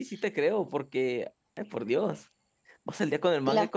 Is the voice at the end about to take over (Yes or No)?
No